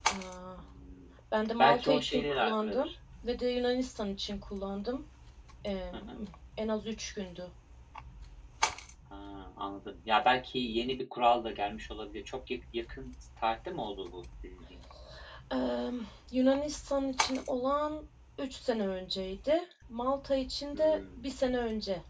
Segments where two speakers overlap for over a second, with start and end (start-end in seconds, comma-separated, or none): 1.6-2.9